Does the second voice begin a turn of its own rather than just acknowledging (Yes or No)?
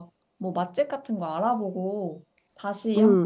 Yes